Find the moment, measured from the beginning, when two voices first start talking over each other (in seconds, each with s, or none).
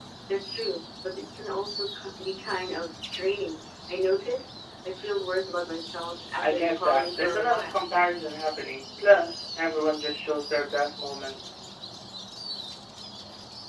6.4 s